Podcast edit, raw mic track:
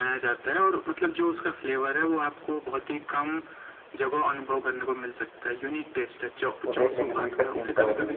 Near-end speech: present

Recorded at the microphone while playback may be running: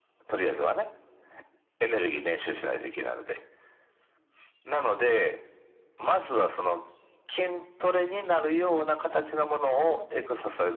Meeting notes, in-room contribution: present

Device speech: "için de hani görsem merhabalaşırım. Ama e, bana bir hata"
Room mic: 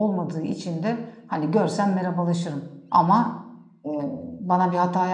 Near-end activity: none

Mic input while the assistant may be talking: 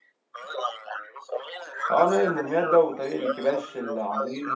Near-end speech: present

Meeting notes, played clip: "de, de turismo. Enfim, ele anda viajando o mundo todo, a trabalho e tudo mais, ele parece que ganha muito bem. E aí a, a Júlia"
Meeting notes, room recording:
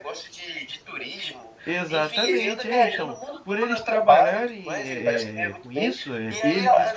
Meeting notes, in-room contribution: present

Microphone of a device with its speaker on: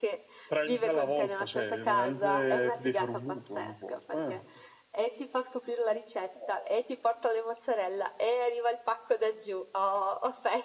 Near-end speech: none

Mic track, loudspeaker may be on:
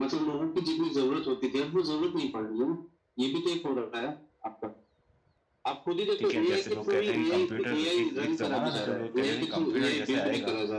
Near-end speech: present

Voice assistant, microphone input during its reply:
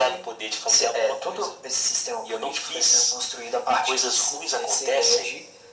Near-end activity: none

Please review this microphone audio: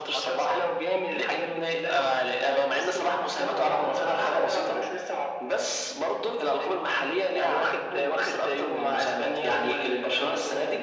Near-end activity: none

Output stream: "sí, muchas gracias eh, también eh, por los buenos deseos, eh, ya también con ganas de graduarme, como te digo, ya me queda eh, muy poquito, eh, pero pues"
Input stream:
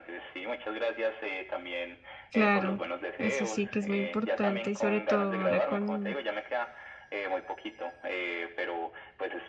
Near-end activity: present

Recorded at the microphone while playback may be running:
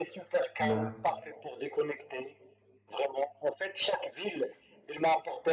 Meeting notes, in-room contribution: present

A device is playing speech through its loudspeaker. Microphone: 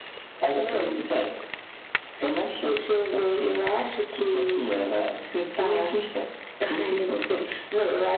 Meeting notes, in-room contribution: none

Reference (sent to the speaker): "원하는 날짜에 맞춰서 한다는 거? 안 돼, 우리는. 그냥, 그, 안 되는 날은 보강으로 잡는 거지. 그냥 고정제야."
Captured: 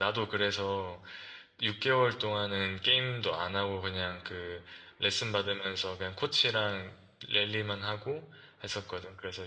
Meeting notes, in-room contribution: present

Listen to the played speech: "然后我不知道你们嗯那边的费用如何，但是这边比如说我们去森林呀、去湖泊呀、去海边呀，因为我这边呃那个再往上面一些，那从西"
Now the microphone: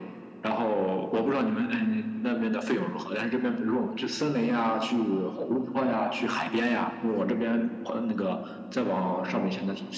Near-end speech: none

